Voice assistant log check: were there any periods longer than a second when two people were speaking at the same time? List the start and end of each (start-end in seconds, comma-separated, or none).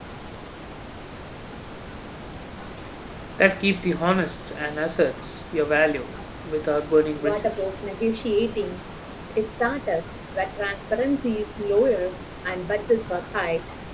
none